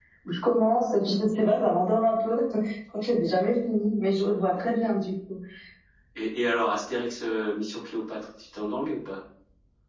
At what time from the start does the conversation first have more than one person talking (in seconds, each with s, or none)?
none